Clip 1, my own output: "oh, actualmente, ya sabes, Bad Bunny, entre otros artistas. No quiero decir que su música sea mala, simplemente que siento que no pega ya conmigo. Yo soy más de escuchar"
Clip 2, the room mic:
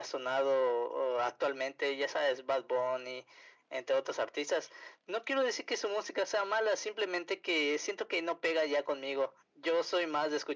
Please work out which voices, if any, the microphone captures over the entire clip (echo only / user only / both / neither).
echo only